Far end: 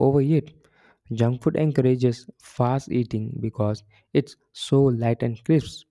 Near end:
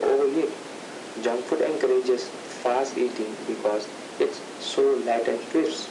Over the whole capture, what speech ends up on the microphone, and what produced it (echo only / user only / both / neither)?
echo only